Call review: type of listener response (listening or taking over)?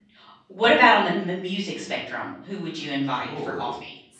taking over